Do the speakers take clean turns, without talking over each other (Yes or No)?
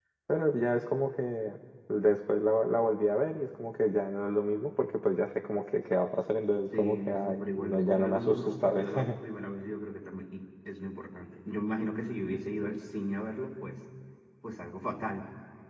No